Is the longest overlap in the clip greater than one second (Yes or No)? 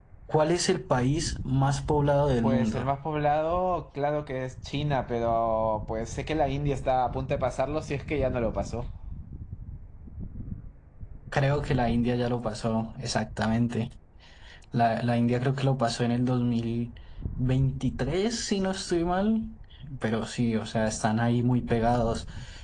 No